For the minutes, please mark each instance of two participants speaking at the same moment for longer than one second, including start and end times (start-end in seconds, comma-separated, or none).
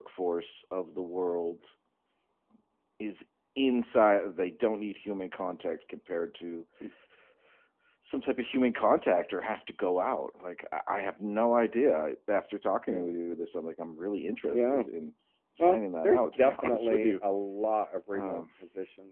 15.6-17.1